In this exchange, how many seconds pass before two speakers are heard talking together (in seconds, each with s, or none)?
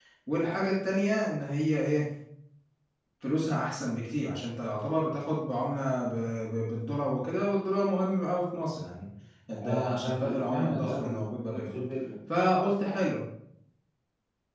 9.6 s